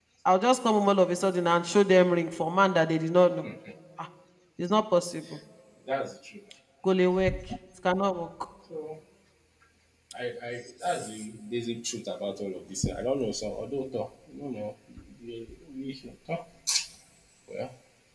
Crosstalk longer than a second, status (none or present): none